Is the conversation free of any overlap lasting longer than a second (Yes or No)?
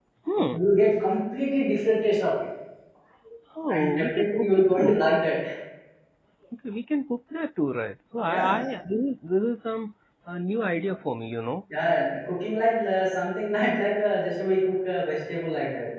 No